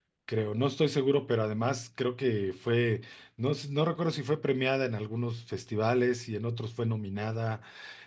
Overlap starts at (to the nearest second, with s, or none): none